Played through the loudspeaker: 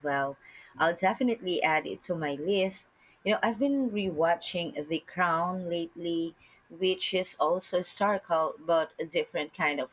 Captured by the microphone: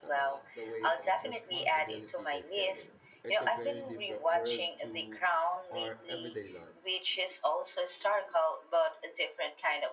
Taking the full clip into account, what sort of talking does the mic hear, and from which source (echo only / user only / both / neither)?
both